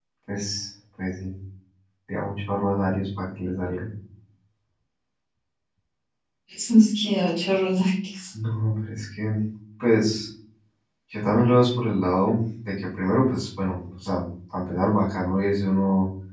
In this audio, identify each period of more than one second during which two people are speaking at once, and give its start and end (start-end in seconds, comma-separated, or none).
none